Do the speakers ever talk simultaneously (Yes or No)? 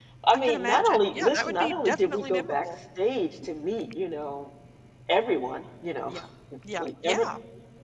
Yes